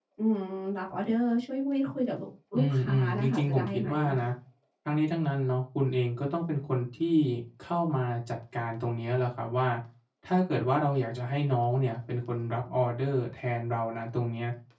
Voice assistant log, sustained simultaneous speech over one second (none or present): present